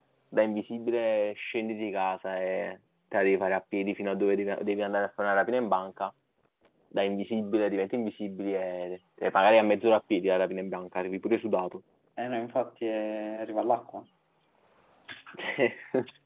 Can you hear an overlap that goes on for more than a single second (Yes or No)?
No